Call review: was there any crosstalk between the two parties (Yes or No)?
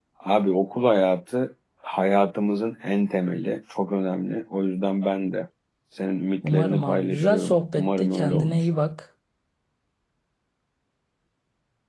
Yes